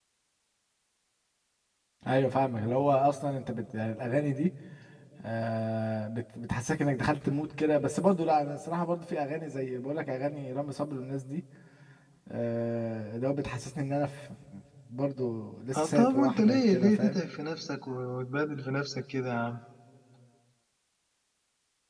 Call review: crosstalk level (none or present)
present